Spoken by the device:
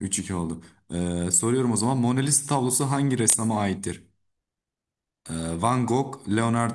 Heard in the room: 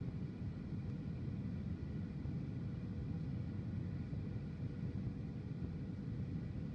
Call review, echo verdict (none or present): none